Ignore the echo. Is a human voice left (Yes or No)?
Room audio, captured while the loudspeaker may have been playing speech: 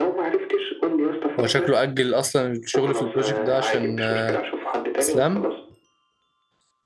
Yes